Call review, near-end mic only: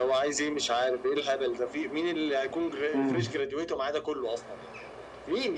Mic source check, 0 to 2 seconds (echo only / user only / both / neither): echo only